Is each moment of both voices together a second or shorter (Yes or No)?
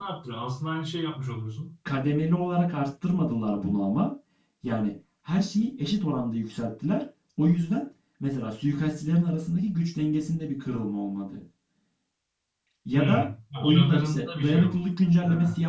No